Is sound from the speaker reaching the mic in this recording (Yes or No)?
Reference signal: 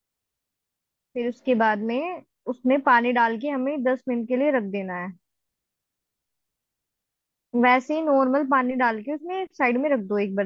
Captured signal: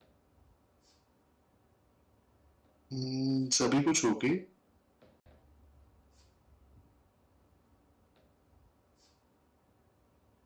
No